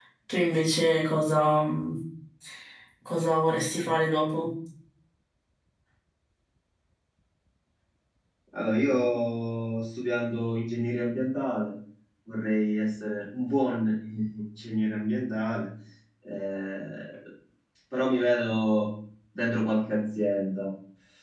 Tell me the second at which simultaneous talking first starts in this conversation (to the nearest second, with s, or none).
none